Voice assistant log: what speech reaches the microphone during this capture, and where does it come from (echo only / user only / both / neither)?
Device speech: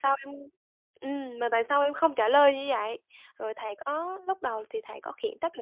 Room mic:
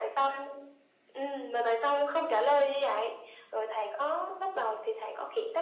echo only